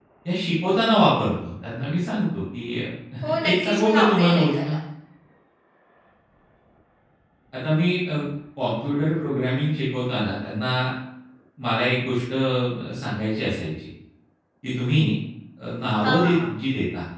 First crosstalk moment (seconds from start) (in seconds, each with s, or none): 3.4 s